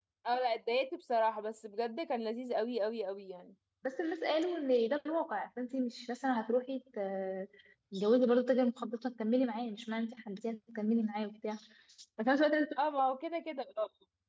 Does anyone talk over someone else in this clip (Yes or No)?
No